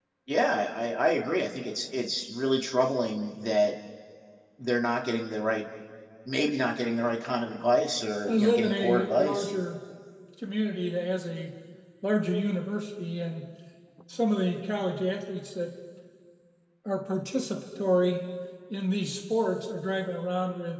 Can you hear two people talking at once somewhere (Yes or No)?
Yes